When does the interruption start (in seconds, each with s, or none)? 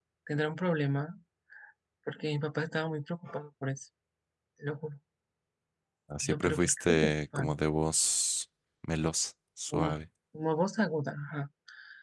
6.2 s